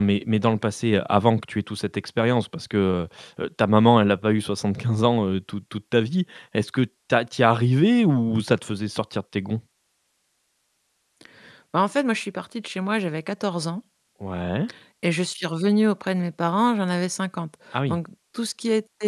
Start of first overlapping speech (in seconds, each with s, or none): none